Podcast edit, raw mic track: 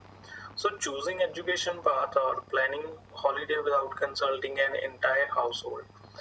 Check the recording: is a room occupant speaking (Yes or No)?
No